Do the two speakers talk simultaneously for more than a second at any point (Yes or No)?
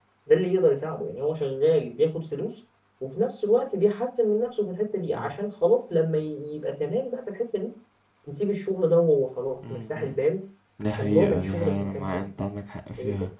Yes